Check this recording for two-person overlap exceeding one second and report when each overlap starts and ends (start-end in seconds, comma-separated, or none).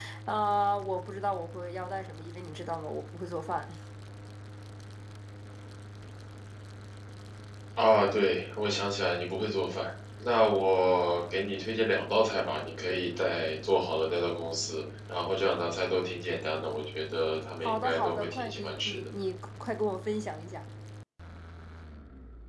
17.6-19.1